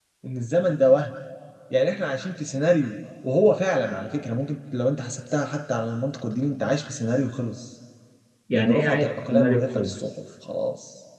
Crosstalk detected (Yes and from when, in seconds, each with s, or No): Yes, from 8.6 s